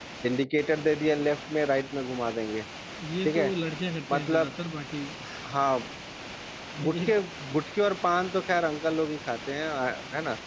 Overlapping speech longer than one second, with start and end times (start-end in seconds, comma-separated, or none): none